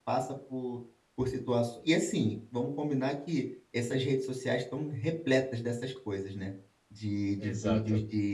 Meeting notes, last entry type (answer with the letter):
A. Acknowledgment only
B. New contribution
A